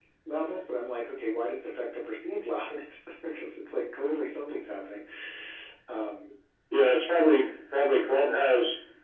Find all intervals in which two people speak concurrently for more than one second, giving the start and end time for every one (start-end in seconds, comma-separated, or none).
none